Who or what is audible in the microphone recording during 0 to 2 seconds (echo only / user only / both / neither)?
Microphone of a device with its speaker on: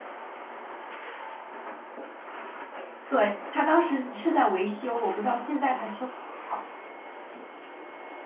neither